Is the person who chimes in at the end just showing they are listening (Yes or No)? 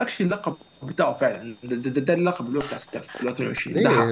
No